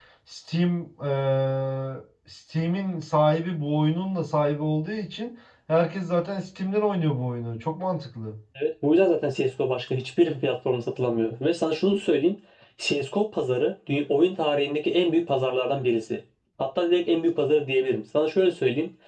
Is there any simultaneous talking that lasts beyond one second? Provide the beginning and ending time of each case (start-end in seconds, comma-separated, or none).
none